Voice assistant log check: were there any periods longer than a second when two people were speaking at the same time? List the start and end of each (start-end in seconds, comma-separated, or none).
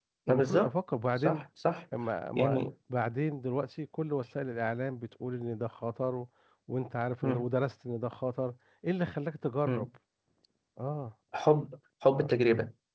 none